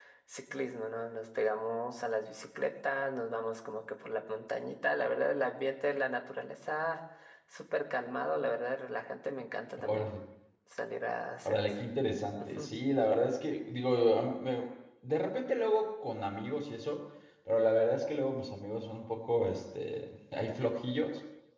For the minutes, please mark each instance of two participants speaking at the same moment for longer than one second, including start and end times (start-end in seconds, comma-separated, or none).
none